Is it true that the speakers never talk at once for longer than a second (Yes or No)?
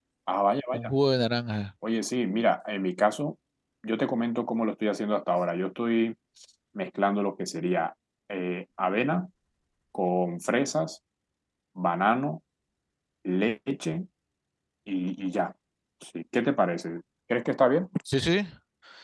Yes